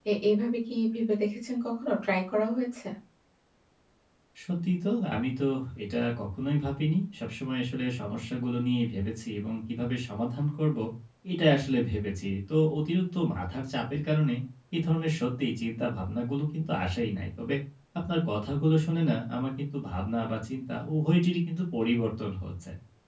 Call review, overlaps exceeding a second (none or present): none